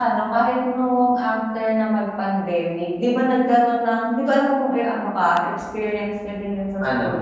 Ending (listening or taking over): listening